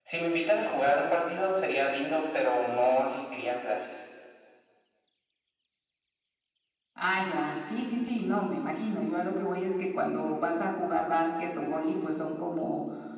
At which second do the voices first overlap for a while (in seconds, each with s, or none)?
none